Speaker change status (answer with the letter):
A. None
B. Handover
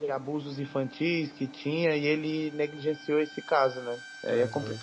B